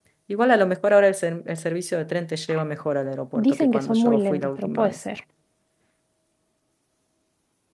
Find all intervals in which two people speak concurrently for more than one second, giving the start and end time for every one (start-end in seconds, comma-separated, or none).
3.5-5.0